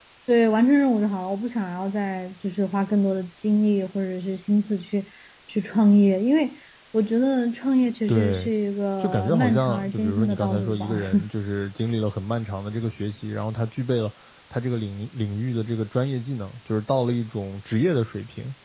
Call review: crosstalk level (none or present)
present